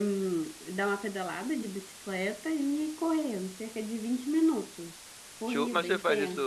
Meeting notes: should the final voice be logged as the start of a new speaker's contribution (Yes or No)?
Yes